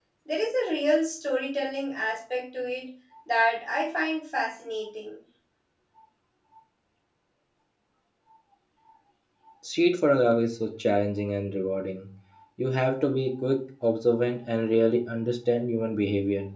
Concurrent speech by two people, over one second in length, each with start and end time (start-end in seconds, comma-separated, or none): none